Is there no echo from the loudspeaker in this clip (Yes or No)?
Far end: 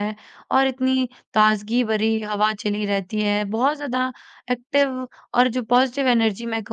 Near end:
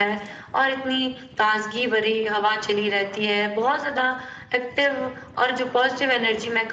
No